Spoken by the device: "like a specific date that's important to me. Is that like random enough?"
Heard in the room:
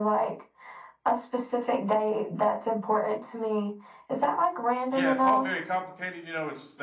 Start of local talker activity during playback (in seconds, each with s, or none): 4.9 s